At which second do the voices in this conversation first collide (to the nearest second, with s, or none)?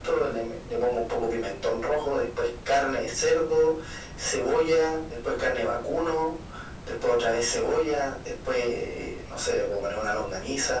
none